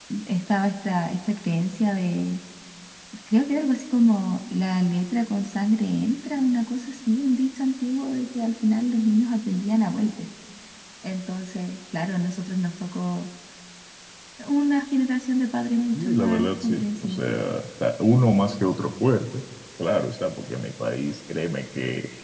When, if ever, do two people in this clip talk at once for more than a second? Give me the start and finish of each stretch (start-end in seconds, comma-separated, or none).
15.9-17.2